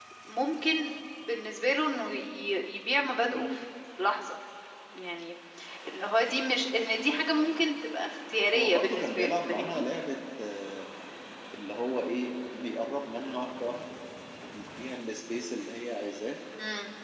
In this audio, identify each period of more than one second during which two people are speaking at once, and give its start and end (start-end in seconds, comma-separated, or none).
8.5-9.8